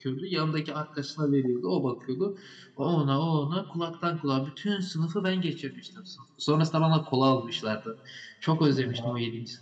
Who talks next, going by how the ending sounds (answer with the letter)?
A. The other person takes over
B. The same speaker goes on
B